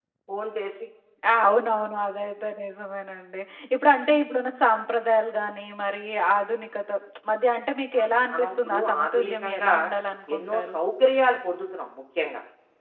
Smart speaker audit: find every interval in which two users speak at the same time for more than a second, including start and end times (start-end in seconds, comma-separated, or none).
8.0-9.7